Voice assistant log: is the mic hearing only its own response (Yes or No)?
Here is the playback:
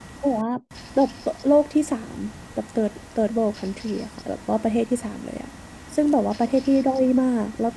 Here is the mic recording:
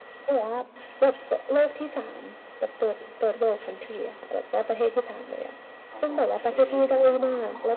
No